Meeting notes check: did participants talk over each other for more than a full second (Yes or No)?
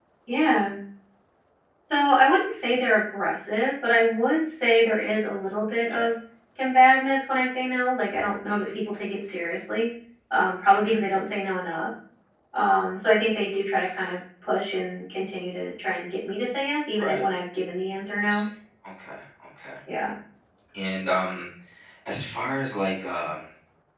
No